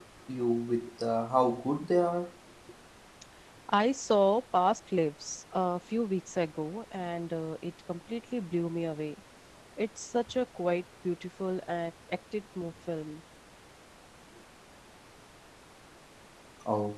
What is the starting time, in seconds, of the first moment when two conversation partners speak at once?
none

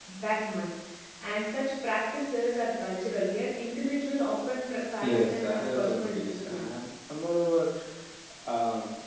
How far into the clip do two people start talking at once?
4.8 s

